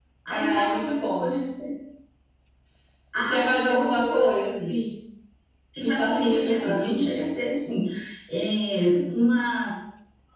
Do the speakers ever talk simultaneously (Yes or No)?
Yes